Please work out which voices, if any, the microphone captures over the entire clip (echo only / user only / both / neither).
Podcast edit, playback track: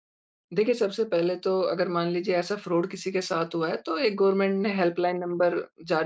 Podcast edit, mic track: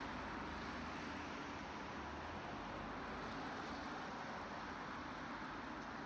neither